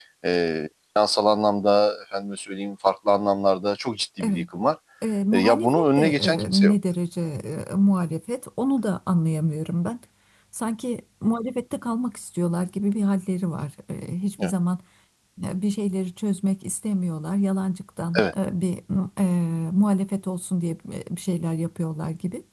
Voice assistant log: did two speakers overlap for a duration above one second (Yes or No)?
Yes